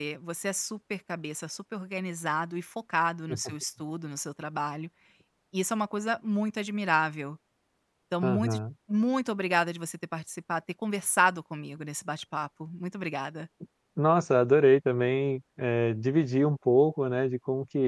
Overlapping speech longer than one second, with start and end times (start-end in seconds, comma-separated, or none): none